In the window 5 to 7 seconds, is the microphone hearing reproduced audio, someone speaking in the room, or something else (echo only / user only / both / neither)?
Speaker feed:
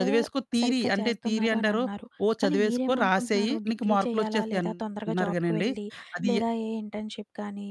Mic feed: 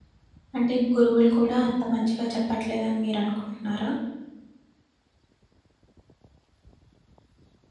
neither